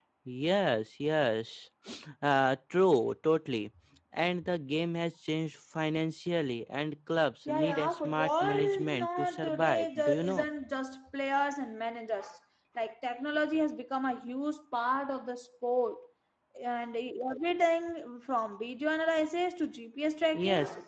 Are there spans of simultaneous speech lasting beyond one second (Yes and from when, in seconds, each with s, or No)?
Yes, from 7.5 s